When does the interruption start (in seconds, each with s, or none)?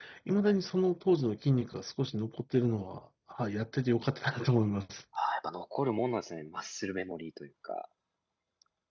none